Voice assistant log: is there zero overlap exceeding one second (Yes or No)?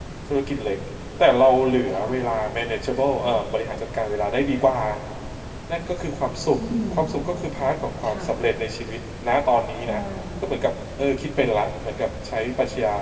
Yes